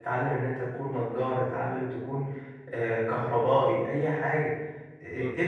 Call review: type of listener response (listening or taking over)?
listening